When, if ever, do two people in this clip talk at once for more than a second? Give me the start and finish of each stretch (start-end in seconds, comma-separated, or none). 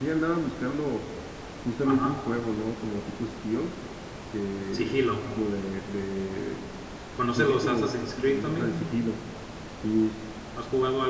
7.4-8.8